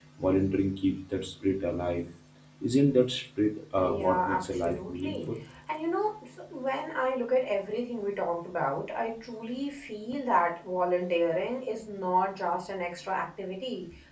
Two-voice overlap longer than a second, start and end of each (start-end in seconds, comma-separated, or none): 3.8-5.1